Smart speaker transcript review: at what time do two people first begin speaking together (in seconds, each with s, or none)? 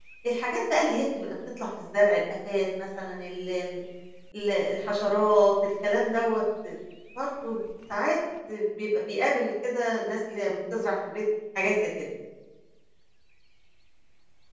none